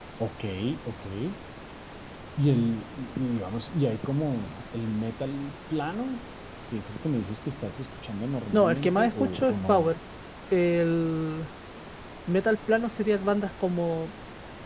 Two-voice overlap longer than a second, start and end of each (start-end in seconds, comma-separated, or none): 8.5-9.9